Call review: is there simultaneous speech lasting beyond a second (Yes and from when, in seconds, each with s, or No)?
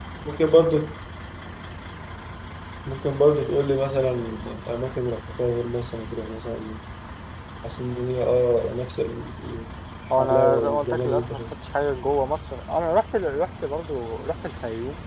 Yes, from 10.1 s